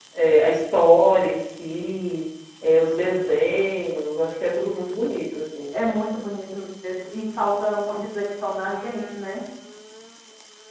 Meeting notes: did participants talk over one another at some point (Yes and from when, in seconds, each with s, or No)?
No